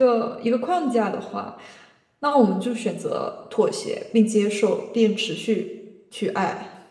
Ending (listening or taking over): taking over